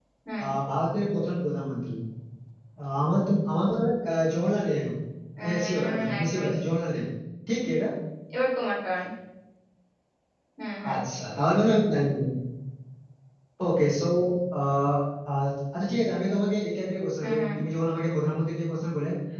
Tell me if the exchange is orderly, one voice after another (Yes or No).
No